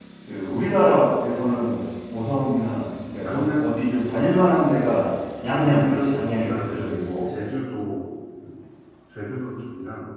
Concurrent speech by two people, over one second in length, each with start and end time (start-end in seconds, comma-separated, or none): 5.6-6.8